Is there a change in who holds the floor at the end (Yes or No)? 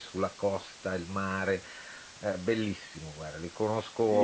Yes